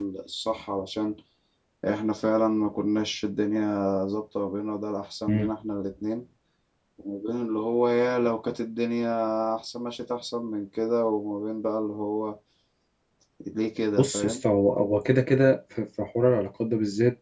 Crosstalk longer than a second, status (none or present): none